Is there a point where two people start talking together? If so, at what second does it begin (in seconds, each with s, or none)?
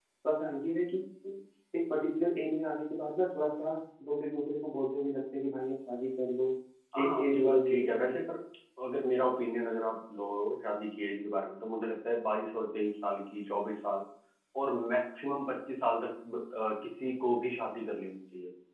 7.0 s